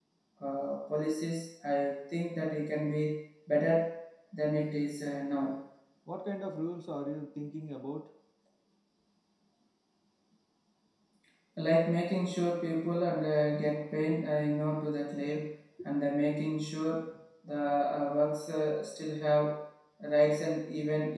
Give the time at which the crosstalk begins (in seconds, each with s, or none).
none